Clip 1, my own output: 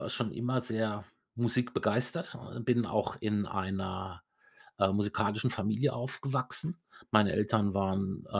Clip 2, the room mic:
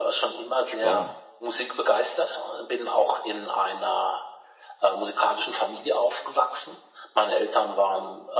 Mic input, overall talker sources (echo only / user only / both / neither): both